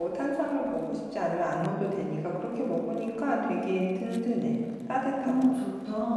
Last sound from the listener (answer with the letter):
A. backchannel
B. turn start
B